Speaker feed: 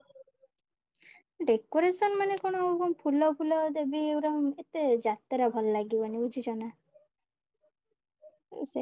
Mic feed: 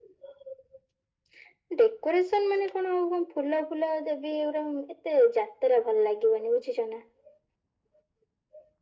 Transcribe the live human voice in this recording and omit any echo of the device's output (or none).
none